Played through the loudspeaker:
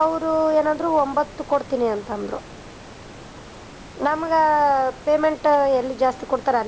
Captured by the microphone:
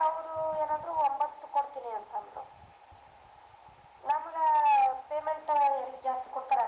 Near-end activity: none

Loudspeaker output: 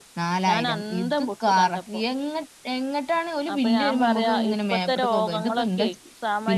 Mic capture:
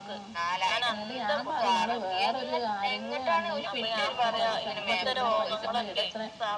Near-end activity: present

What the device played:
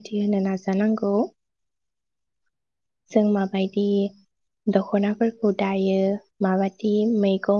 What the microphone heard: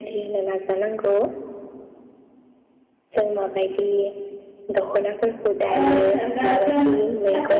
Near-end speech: present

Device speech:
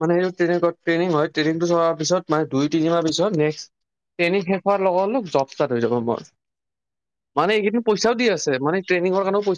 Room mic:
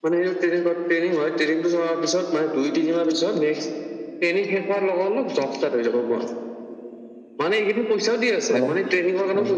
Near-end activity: present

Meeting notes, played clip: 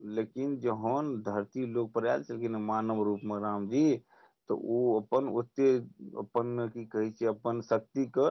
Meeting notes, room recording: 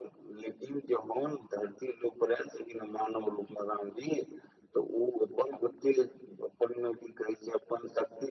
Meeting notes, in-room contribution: none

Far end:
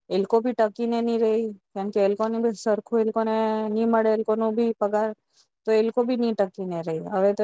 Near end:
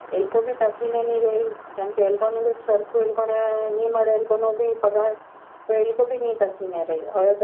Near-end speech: none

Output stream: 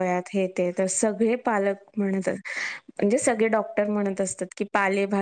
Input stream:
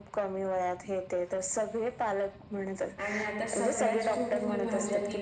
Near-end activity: present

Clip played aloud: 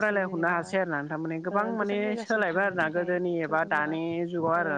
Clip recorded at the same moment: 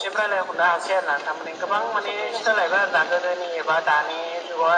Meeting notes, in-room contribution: none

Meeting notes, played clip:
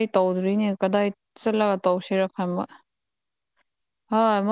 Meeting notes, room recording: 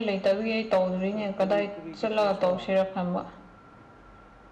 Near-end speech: present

